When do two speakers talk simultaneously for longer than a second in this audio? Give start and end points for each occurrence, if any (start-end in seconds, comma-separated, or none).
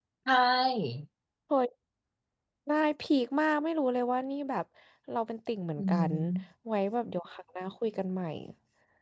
none